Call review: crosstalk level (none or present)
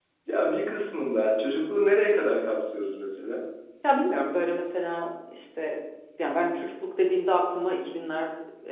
none